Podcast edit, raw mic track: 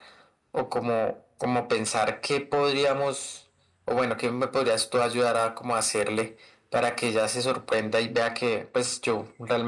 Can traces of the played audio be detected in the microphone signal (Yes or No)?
Yes